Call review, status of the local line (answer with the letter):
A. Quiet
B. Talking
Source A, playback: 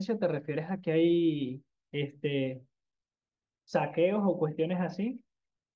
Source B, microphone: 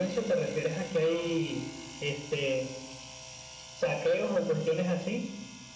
A